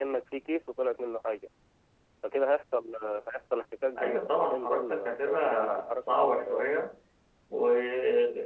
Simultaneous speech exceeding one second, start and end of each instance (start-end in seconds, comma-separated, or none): 4.0-6.7